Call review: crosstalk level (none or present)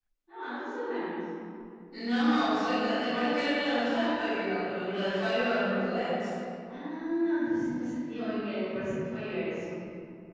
none